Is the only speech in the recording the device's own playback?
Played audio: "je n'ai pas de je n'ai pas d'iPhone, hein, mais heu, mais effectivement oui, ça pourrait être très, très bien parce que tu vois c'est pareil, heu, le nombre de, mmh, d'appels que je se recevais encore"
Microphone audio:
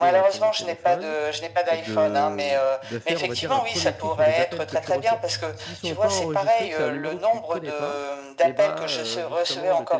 No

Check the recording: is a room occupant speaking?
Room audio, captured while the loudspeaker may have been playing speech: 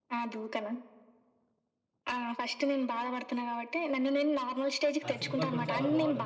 Yes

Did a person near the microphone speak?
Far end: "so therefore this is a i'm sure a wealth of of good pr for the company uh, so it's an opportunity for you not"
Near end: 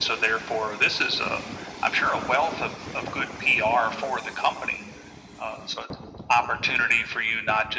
No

